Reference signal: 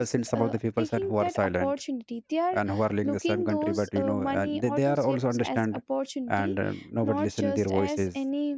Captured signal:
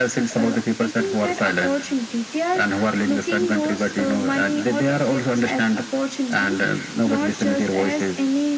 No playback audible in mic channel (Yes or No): No